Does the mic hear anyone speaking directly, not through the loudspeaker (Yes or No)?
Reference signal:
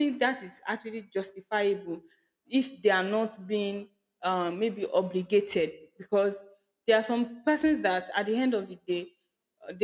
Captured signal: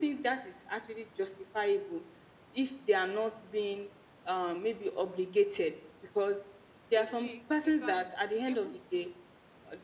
Yes